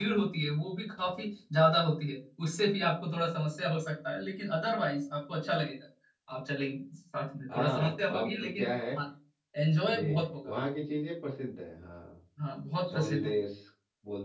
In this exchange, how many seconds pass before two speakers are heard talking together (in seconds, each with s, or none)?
7.5 s